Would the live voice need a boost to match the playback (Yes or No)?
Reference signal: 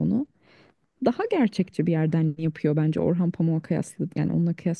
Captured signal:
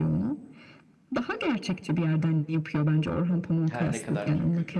Yes